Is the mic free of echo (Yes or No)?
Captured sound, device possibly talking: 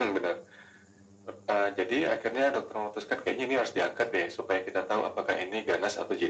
No